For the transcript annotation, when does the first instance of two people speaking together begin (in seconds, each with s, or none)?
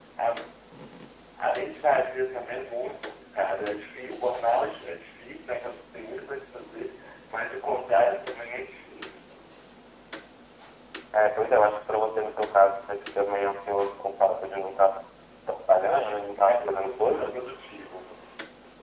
16.0 s